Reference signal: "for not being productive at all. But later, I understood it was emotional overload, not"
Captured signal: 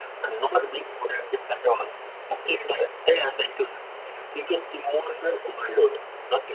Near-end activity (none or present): none